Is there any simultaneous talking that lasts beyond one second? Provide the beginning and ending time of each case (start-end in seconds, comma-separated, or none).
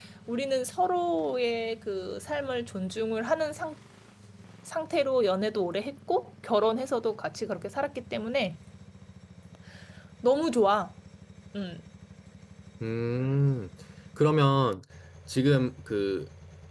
none